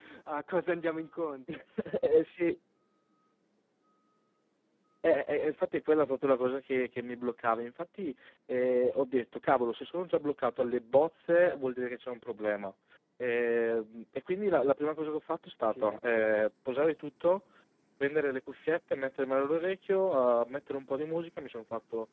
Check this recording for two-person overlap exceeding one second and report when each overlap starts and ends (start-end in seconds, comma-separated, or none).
none